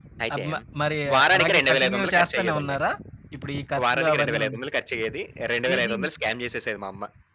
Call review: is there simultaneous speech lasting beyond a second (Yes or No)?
Yes